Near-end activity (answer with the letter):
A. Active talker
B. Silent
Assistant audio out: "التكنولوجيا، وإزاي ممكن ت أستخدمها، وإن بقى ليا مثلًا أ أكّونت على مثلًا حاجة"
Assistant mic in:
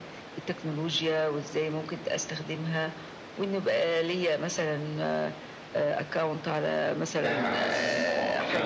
A